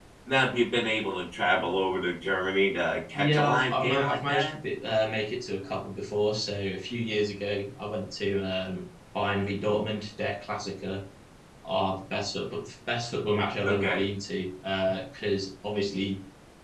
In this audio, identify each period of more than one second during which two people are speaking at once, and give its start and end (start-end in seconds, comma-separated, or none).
3.1-4.5